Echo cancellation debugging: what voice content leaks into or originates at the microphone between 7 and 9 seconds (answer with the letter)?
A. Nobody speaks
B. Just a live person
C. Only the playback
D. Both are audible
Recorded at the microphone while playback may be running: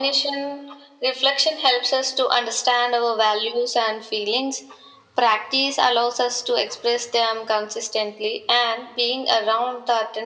C